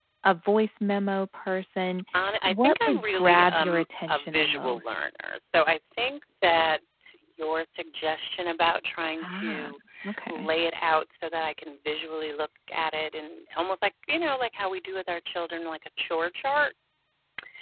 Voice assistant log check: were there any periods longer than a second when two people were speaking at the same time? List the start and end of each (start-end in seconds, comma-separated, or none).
2.5-5.0